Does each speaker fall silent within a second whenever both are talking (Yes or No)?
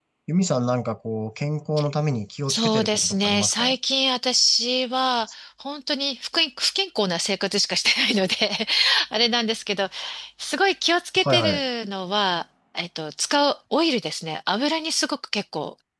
No